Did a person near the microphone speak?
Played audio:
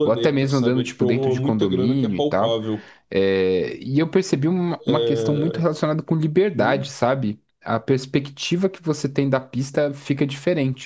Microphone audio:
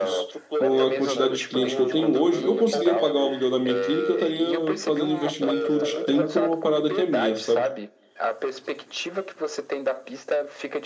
Yes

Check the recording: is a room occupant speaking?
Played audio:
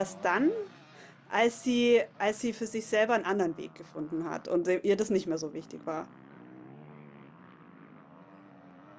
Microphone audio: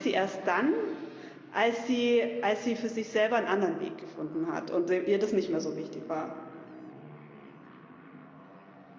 No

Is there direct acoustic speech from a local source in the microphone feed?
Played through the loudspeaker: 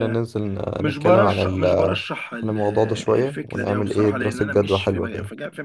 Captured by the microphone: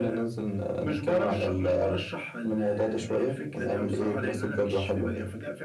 No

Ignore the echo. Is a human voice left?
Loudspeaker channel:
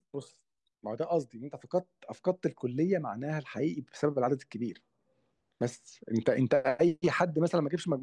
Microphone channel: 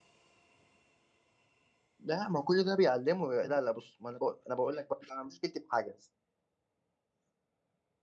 Yes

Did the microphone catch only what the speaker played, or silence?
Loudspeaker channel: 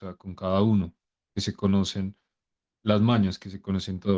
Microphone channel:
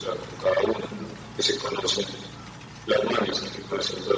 Yes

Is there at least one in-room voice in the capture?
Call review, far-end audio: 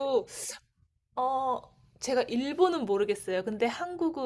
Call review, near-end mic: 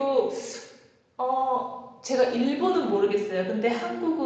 No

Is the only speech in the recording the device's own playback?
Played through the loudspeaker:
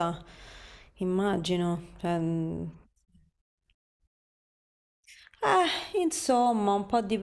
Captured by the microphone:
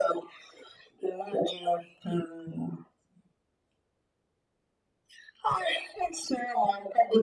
Yes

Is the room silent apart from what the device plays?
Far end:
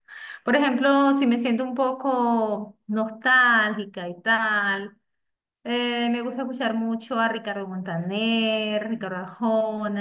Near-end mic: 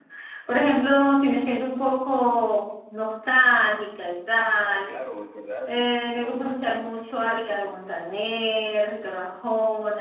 No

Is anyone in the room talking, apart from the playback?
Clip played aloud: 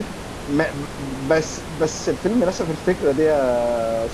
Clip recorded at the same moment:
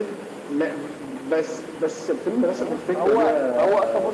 Yes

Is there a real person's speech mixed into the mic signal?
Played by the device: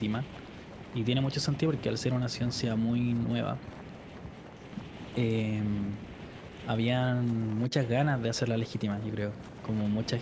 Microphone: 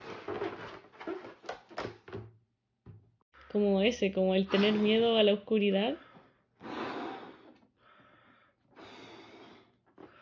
Yes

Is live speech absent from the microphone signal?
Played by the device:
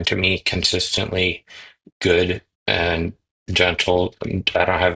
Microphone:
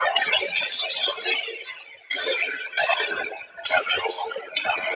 Yes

